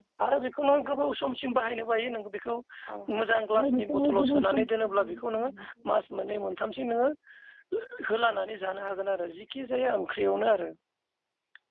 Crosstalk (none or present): present